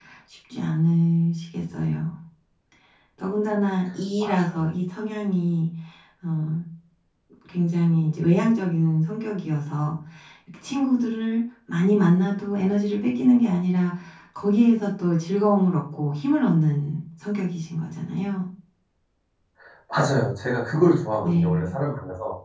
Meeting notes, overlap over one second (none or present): none